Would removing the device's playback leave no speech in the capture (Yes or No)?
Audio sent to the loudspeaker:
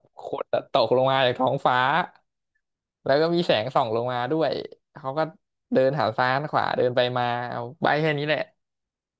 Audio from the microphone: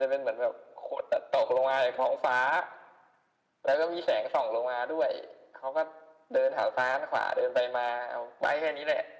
Yes